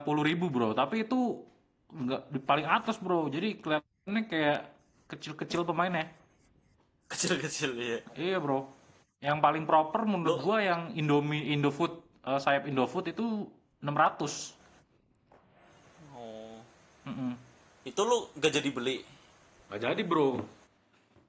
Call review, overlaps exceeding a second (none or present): none